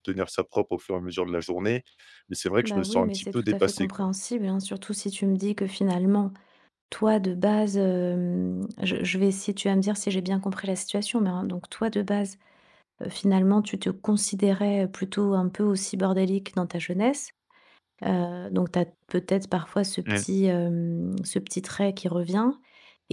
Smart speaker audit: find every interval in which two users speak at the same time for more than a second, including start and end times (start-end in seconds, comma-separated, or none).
2.6-3.9